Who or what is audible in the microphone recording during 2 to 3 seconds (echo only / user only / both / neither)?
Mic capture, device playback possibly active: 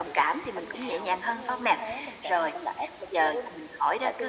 echo only